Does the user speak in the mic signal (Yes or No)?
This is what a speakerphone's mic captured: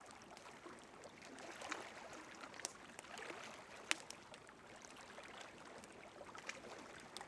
No